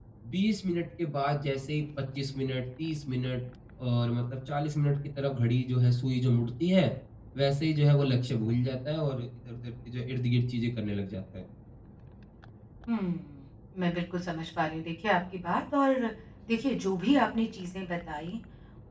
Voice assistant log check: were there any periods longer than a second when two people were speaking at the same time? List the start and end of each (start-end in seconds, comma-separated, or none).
none